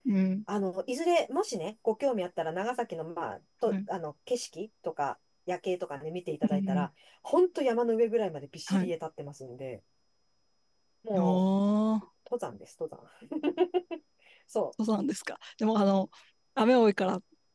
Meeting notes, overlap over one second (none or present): none